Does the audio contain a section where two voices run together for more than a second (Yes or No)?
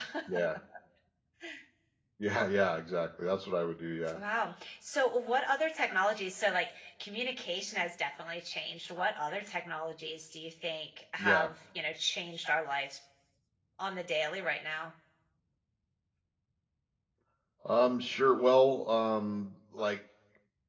No